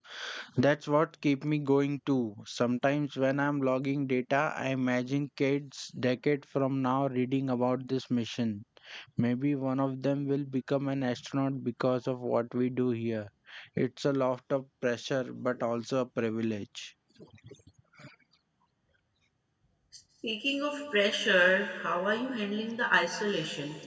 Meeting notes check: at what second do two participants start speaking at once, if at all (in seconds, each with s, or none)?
none